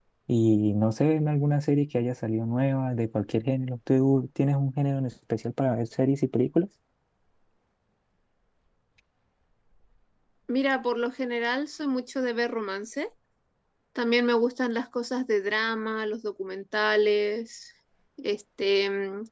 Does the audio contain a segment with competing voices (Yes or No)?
No